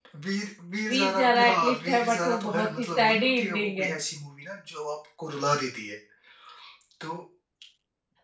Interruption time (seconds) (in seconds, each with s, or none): 0.9 s